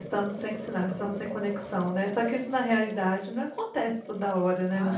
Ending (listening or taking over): taking over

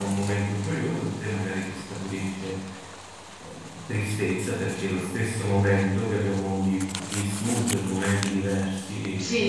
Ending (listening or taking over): taking over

